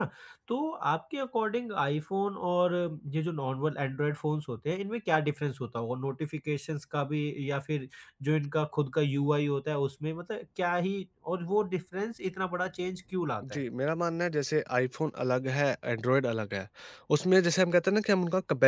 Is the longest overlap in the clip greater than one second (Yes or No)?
No